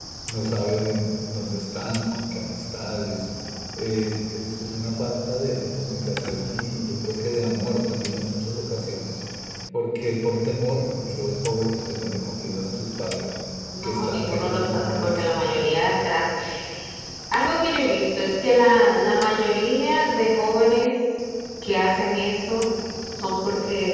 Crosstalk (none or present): present